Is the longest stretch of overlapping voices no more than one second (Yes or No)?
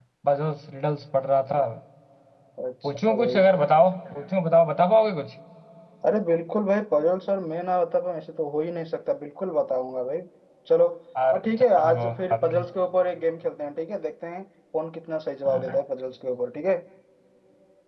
No